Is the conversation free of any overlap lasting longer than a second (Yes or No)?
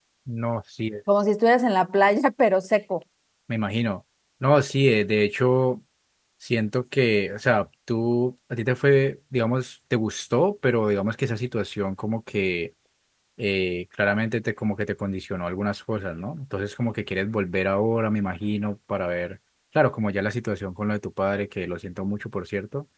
Yes